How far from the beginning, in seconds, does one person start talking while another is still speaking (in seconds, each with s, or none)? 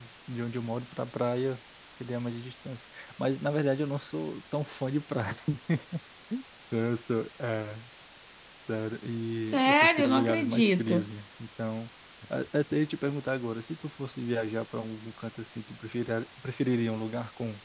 9.4 s